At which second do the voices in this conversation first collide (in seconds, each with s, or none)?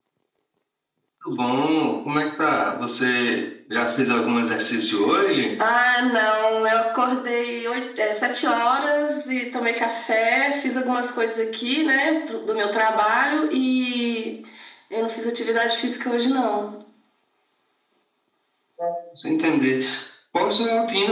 none